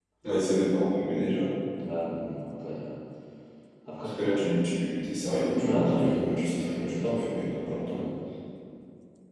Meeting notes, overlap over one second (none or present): present